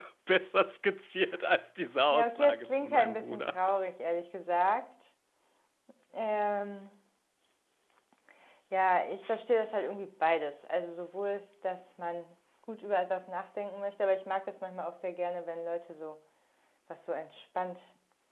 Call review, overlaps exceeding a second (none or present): present